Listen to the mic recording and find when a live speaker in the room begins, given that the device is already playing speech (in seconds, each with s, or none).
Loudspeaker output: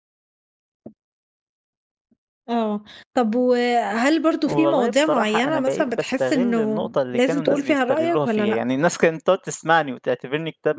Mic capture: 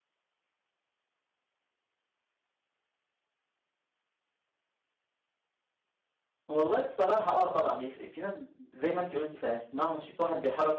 6.5 s